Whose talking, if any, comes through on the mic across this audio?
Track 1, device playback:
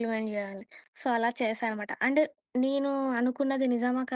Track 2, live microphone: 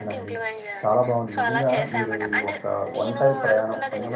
both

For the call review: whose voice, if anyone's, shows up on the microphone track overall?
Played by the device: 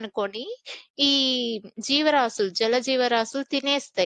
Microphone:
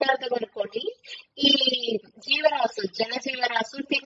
echo only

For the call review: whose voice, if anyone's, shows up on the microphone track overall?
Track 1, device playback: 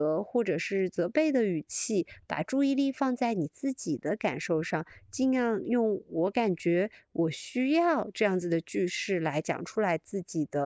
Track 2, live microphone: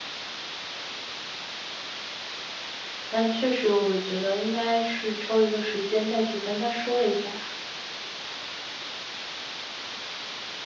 user only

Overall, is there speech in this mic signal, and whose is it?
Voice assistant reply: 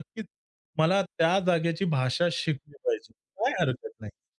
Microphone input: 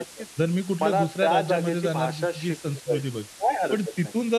both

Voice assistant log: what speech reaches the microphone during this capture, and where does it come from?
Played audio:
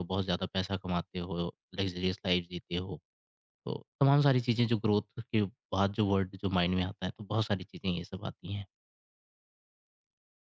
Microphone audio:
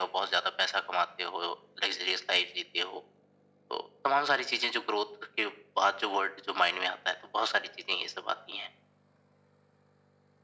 echo only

